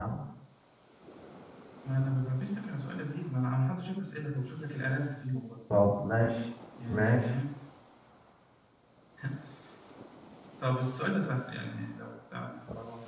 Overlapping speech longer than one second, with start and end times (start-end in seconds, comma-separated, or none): none